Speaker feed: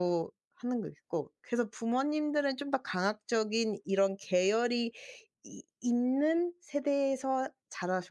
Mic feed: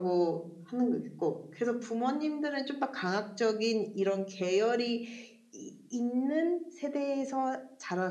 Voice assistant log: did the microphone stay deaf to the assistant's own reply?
No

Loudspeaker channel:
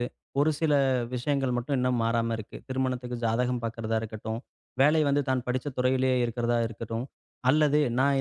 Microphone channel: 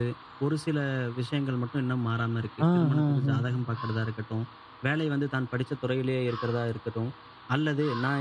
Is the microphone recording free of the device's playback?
No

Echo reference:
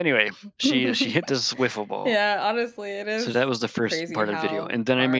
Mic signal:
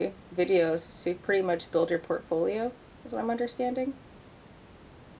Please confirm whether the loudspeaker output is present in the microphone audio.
No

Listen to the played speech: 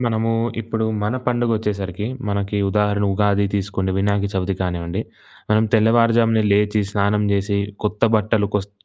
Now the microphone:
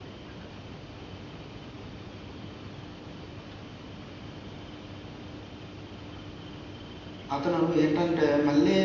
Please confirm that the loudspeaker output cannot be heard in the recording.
Yes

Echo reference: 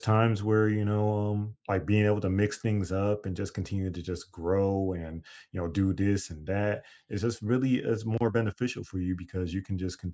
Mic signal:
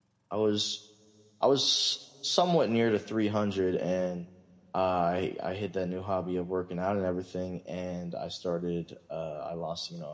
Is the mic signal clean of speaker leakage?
Yes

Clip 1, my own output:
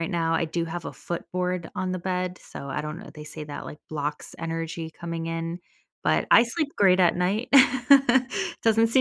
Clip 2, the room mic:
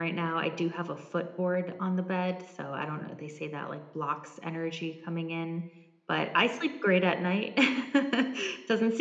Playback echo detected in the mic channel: Yes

